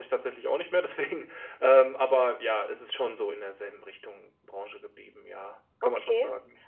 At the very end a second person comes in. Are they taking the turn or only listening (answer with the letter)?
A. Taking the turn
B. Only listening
A